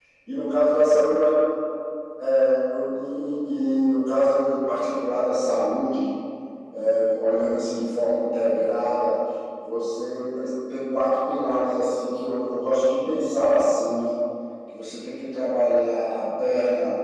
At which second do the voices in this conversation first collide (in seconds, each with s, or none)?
none